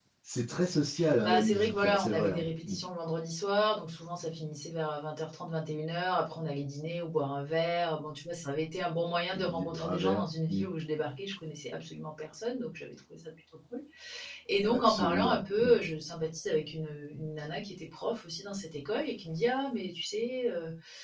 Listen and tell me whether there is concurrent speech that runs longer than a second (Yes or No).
Yes